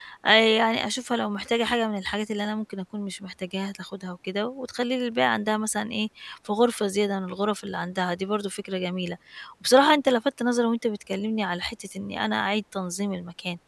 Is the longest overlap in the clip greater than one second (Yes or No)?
No